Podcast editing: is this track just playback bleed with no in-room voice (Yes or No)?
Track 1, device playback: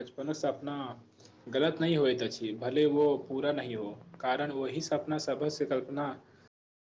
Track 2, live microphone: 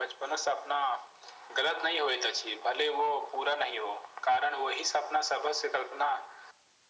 Yes